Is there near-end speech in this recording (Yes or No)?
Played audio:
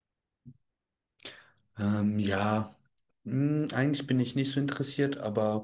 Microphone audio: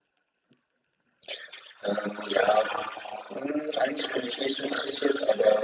No